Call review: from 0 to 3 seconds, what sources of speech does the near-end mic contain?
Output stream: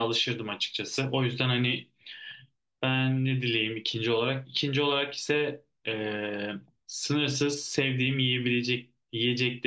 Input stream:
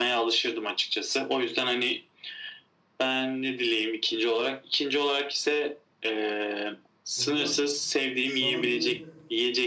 echo only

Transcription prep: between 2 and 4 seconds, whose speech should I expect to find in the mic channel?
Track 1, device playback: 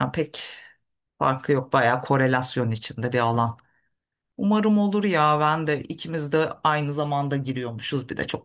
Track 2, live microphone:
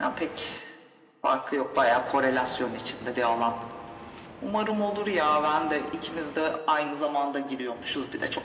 echo only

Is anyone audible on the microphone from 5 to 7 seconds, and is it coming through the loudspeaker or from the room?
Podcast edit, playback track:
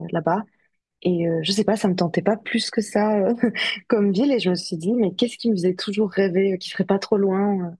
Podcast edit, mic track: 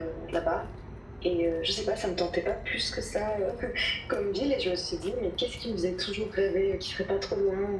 echo only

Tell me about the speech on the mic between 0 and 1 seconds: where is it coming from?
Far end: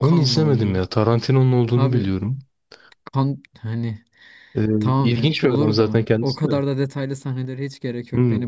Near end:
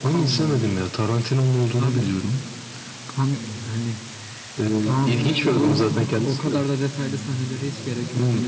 echo only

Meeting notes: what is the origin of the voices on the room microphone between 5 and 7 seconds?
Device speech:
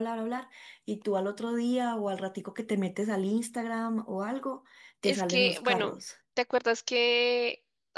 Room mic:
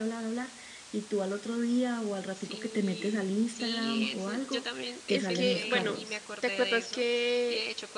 both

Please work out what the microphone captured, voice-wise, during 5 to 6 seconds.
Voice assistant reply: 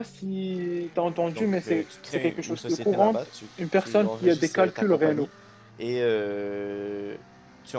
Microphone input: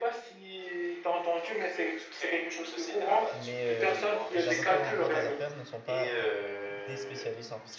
both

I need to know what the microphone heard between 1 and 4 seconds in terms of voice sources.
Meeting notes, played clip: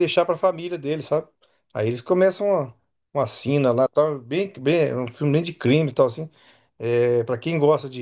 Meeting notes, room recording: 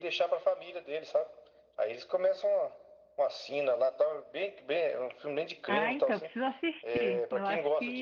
echo only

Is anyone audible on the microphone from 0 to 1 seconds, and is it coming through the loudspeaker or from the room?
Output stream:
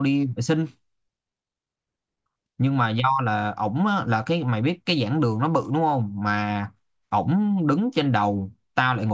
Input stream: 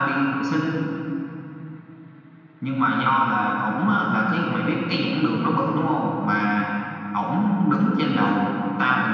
echo only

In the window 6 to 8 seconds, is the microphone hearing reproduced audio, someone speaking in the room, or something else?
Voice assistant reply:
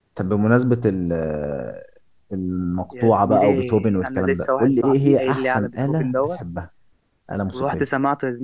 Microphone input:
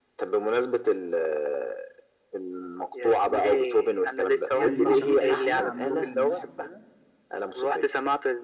both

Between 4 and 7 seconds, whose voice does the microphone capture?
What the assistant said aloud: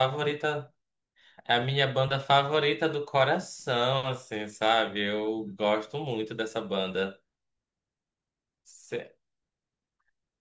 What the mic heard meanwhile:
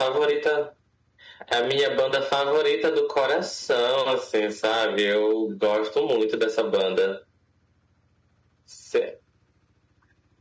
echo only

